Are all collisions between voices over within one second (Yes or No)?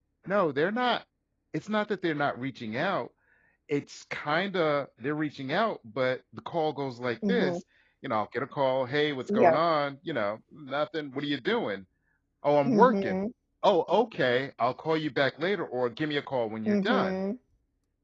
Yes